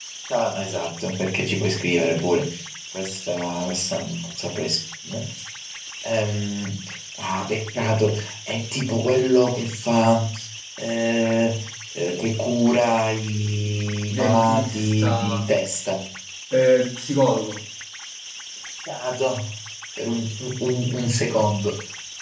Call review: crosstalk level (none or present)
present